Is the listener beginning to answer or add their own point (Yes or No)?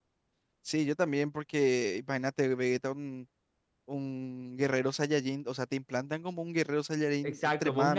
Yes